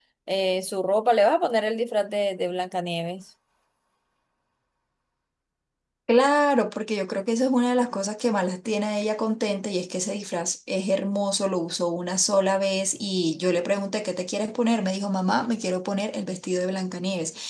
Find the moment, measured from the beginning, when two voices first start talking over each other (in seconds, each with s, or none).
none